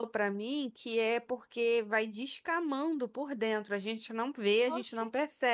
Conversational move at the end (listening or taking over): listening